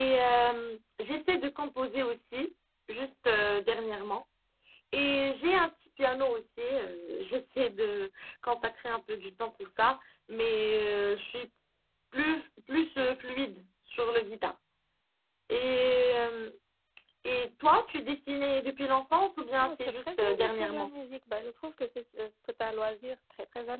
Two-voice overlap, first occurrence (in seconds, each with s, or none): 19.6 s